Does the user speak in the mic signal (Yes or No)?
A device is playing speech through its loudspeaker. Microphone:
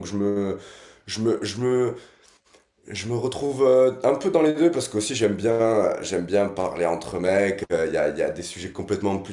Yes